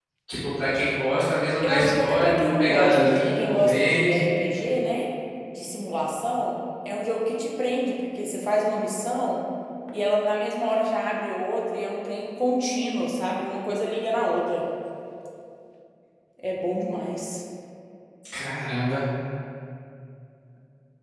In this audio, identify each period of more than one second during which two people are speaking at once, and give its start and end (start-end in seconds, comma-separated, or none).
1.6-4.3